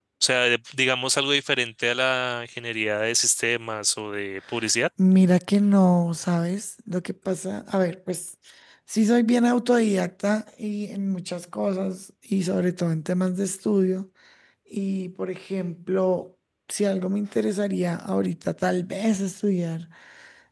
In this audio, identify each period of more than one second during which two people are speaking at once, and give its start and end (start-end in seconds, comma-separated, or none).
none